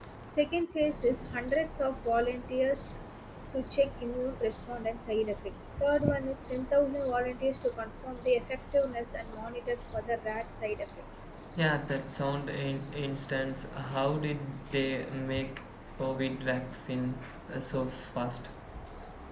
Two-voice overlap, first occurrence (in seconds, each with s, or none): none